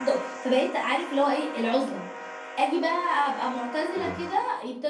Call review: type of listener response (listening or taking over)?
listening